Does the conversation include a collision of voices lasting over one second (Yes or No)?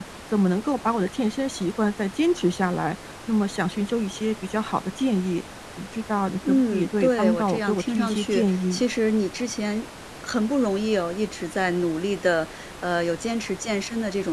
Yes